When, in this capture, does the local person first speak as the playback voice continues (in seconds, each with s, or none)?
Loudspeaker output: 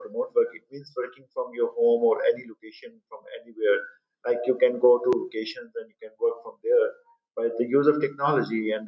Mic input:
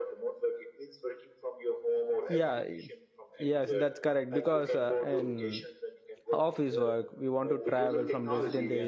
2.3 s